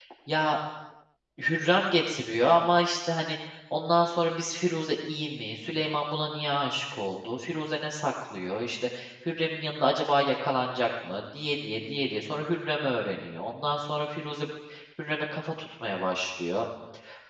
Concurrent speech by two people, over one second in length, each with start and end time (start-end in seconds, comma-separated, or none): none